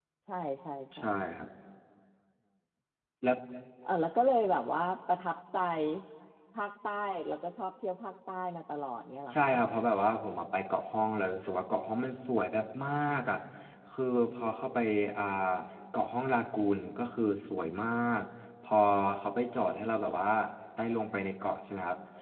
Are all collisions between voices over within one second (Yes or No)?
Yes